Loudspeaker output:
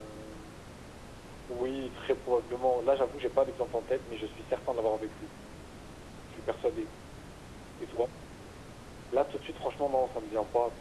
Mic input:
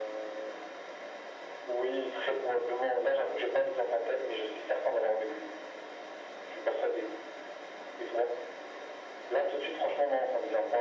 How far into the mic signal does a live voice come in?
none

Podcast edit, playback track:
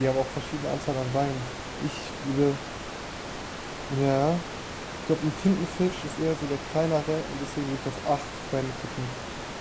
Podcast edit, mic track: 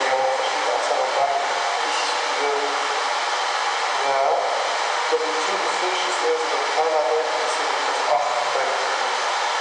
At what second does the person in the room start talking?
none

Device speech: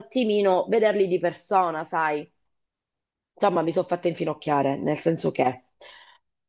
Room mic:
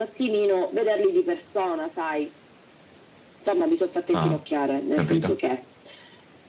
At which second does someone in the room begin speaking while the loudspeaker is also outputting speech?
4 s

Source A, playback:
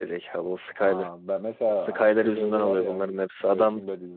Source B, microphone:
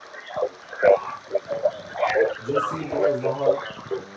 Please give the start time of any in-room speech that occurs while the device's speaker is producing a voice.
2 s

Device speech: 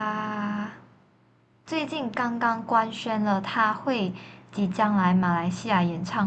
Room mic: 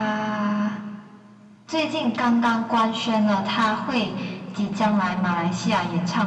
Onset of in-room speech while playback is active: none

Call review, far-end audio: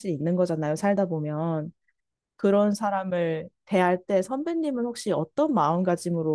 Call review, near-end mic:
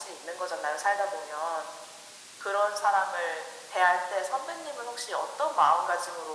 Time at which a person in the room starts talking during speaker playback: none

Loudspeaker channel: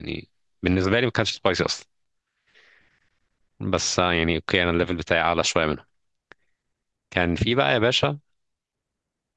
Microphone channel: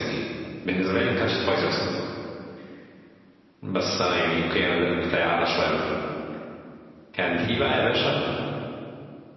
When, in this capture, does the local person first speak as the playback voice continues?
none

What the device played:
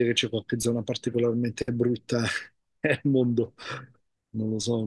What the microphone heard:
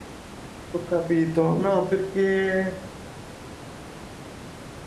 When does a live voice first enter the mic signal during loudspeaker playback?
1 s

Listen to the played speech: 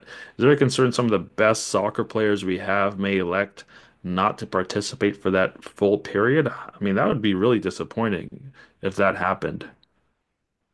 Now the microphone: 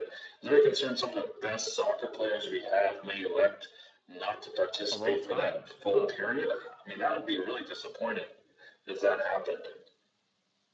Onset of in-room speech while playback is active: 5 s

